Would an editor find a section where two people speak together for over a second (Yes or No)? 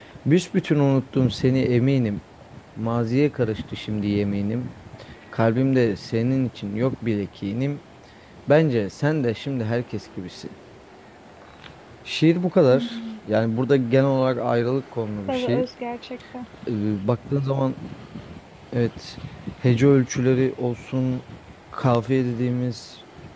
No